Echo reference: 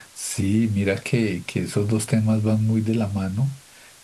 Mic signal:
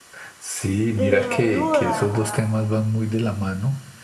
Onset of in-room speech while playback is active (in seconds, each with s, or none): 0.9 s